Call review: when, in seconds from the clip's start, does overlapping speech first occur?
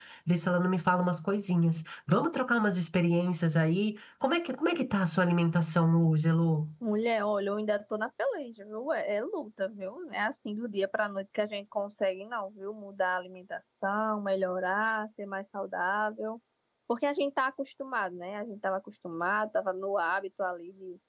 none

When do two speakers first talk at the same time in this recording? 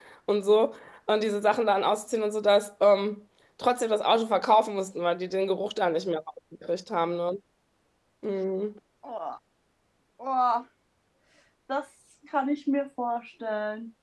none

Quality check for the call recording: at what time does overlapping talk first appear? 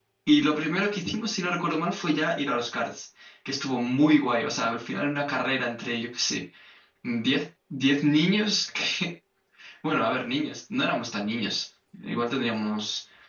none

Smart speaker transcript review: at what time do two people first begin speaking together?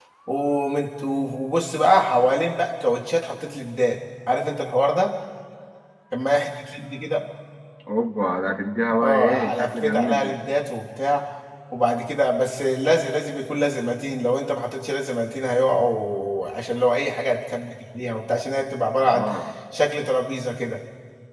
9 s

